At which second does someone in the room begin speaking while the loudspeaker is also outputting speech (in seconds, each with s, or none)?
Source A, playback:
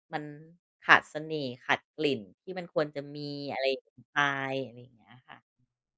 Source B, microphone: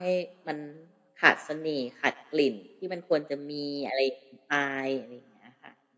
none